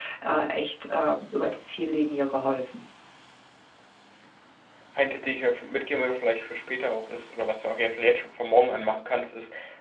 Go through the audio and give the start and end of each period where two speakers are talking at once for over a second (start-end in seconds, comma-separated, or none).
none